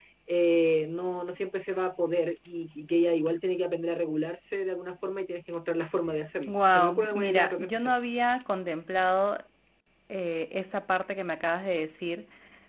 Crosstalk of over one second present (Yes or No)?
Yes